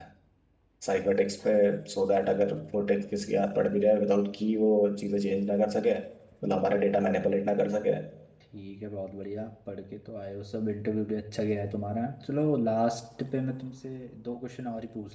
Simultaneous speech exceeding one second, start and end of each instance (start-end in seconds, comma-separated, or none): none